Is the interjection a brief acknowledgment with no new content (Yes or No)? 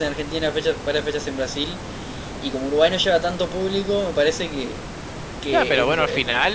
No